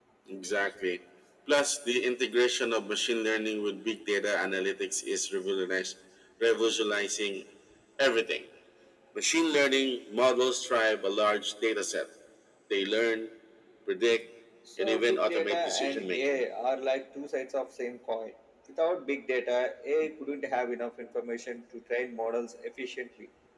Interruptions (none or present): present